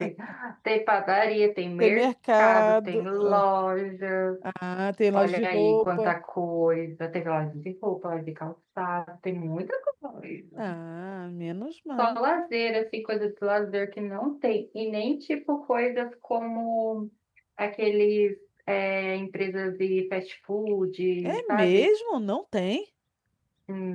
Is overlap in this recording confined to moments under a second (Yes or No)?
No